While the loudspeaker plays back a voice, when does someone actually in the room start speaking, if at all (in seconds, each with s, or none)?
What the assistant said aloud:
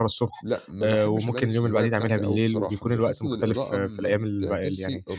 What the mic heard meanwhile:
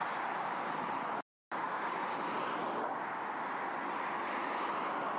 none